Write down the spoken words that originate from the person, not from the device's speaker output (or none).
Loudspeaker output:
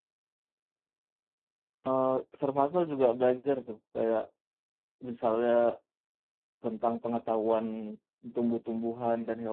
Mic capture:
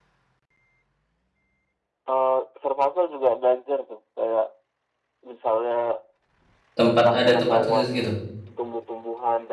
tempat ada tempat khusus gitu.